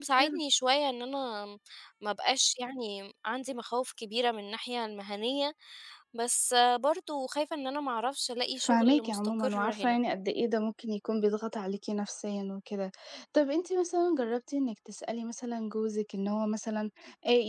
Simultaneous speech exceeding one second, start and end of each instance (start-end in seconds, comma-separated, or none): 8.6-10.0